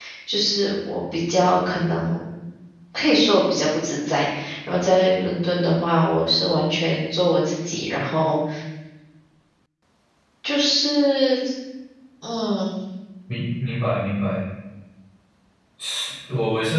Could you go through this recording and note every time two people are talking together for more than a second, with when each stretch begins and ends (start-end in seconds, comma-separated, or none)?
none